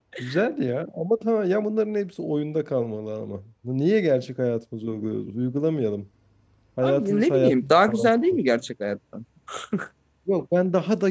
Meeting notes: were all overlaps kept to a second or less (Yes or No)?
No